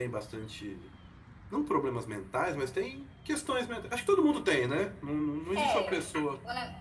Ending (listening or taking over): taking over